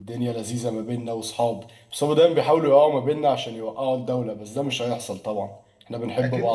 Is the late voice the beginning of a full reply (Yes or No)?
Yes